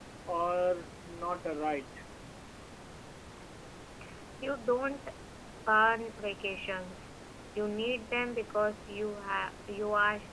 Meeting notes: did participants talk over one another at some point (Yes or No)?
No